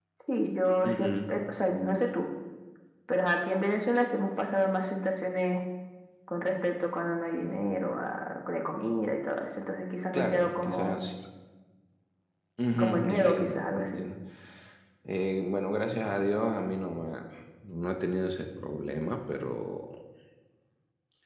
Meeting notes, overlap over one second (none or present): present